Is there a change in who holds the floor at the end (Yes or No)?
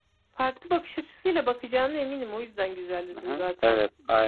Yes